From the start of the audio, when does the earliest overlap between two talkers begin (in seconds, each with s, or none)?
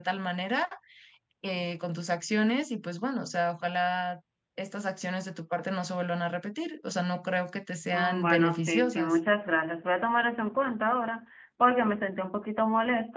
7.9 s